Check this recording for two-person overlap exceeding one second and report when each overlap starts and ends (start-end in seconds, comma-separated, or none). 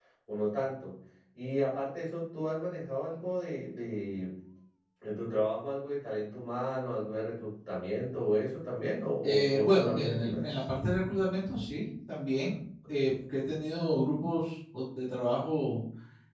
9.2-10.5